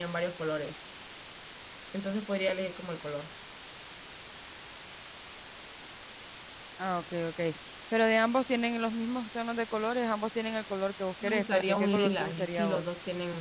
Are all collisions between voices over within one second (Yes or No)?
No